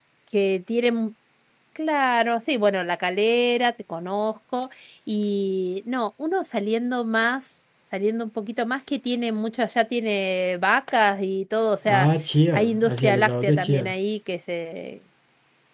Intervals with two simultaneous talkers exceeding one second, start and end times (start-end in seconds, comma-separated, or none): 12.5-13.9